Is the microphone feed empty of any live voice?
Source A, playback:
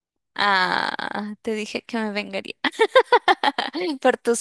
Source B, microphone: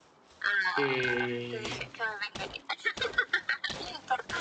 No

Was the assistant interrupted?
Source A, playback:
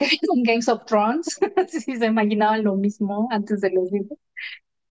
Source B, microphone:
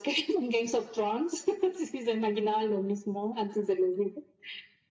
No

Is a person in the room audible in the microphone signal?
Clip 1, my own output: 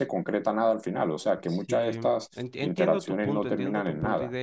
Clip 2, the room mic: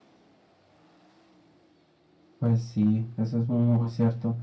Yes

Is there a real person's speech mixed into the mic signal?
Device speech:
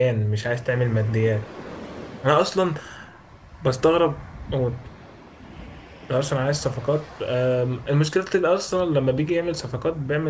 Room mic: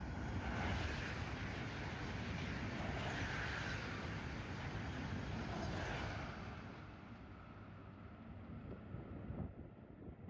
No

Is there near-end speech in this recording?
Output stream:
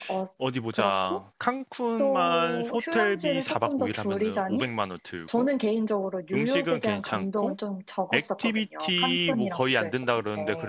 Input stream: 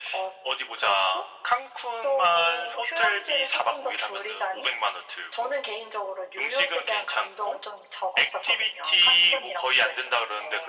No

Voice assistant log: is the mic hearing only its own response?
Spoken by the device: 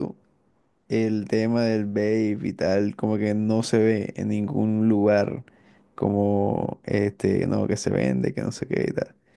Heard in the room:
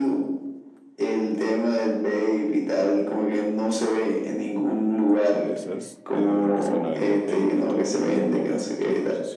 No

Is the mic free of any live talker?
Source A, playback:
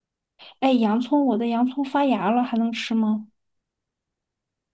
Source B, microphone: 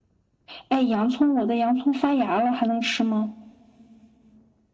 Yes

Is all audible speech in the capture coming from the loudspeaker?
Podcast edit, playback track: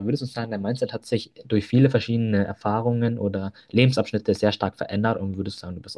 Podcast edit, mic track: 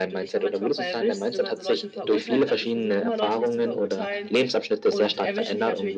No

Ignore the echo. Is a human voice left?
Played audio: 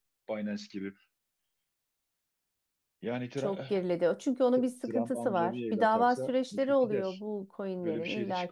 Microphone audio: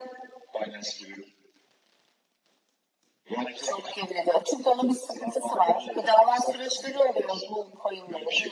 No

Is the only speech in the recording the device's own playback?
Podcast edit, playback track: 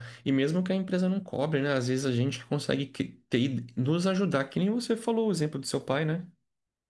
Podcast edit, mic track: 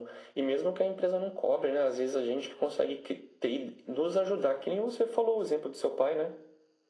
Yes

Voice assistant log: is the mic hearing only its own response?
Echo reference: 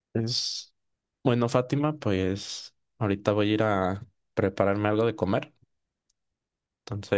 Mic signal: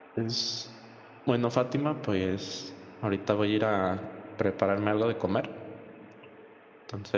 Yes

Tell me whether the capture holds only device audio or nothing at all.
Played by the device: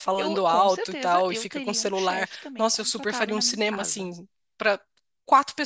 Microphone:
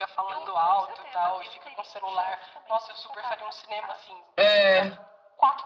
No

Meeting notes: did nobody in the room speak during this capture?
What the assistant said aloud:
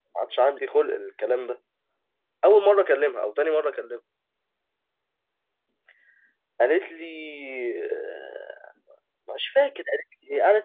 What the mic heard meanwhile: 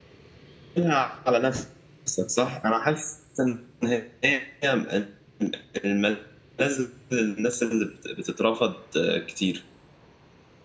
No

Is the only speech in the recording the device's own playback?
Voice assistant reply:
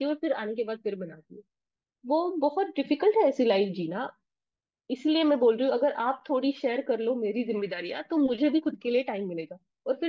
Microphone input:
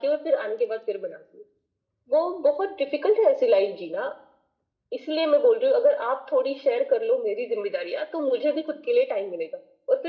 Yes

